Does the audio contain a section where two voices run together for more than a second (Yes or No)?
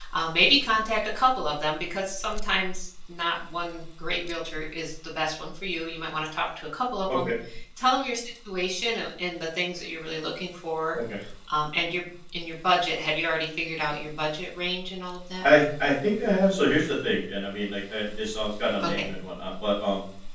No